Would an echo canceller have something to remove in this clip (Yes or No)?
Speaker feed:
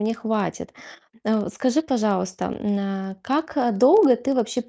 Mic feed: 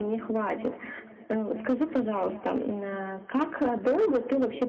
Yes